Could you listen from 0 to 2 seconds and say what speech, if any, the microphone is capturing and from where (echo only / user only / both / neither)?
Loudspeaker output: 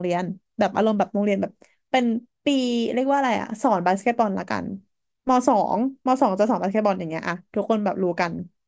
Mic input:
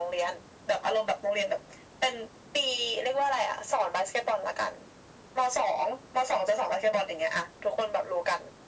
echo only